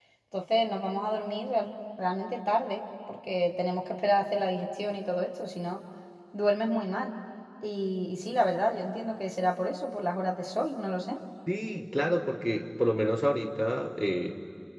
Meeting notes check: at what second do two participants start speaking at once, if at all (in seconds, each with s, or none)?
none